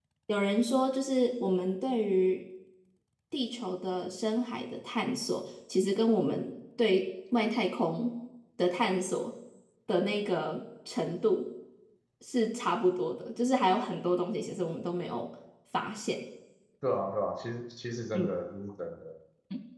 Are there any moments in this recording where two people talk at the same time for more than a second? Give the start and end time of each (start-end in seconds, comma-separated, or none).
none